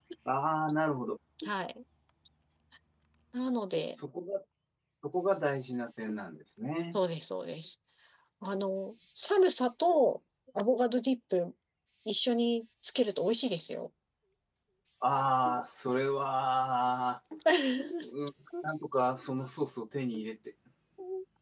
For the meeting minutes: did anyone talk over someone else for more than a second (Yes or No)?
No